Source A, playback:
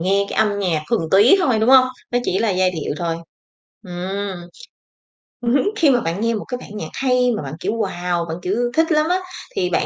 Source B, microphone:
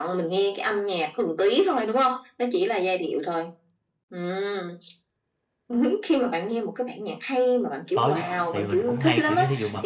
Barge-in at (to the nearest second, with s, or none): 8 s